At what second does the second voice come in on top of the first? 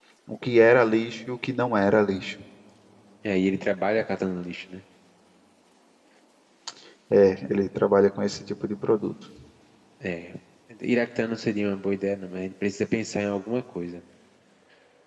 none

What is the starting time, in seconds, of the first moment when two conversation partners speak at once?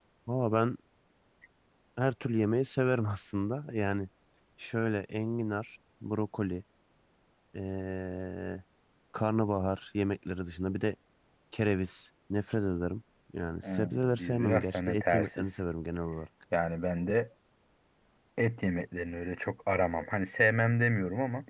14 s

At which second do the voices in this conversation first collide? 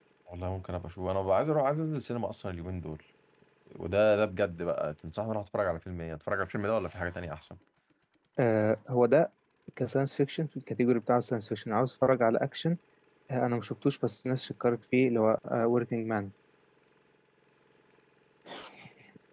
none

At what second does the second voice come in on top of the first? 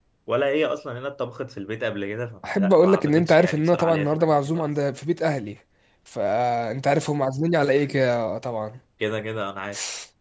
2 s

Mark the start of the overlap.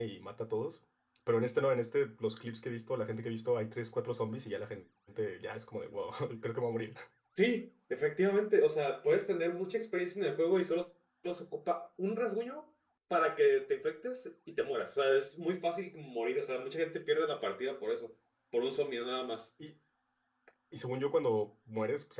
none

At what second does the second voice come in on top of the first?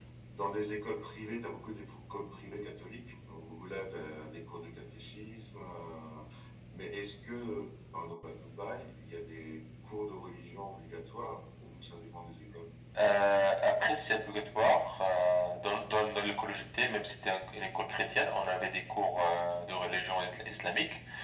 none

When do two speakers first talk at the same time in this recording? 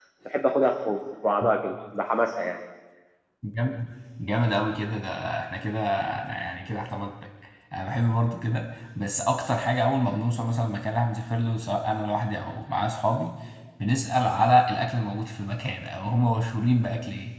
none

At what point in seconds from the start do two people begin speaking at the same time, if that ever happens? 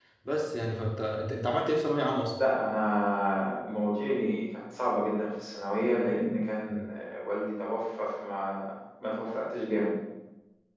none

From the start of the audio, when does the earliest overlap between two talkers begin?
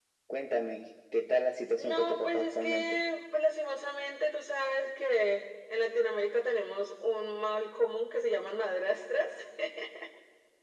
2 s

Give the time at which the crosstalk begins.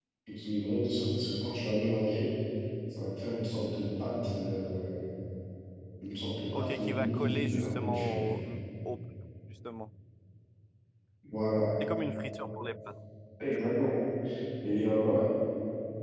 7 s

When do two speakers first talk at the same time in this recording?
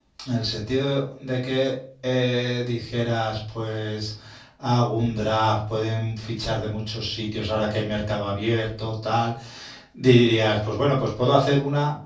none

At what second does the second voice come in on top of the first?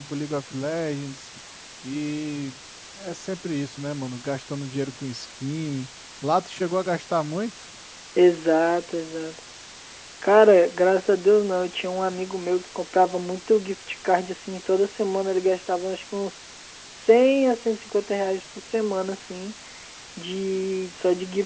none

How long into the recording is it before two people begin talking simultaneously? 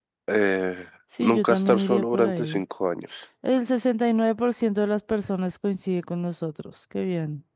1 s

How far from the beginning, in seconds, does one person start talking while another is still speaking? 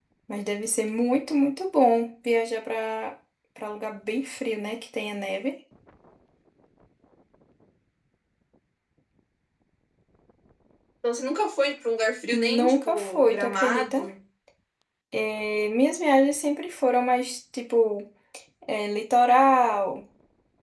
12 s

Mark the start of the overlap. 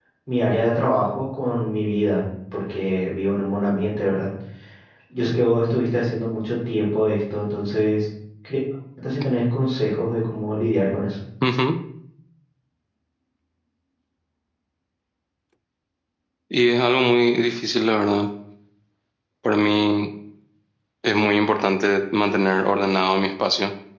none

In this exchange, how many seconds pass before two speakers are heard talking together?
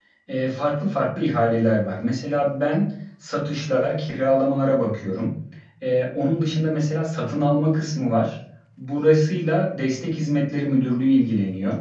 none

